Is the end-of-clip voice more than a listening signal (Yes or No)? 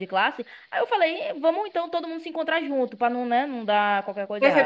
Yes